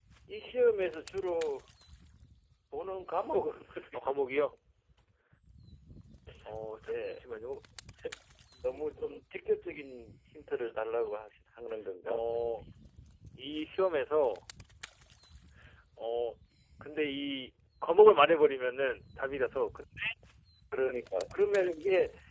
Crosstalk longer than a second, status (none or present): none